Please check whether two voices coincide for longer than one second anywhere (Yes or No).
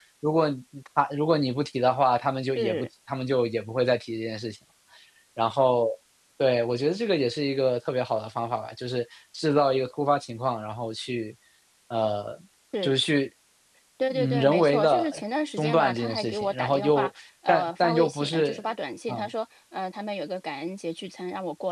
Yes